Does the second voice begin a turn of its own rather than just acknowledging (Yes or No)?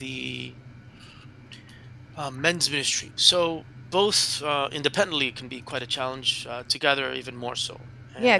Yes